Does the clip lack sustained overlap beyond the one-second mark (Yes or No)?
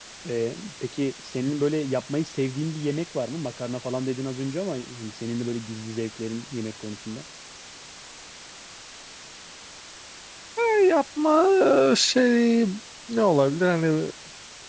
Yes